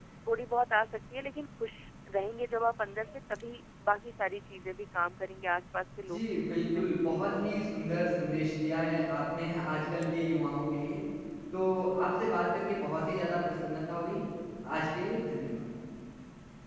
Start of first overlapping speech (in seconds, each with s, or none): 6.0 s